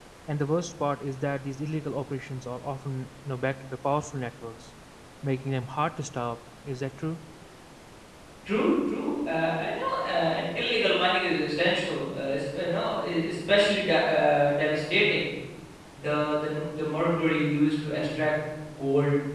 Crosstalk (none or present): none